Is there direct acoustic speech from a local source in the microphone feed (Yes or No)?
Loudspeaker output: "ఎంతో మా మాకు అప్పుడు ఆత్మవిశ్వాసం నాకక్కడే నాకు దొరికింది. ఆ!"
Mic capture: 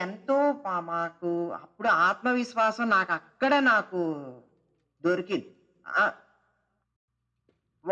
No